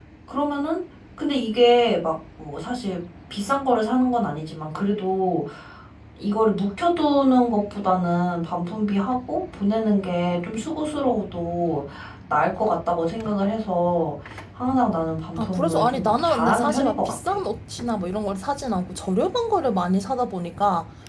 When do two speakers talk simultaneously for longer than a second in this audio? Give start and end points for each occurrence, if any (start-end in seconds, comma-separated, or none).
15.4-17.4